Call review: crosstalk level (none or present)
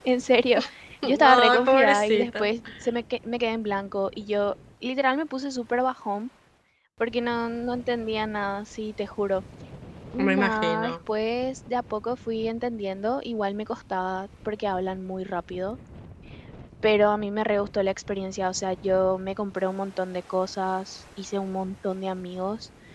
present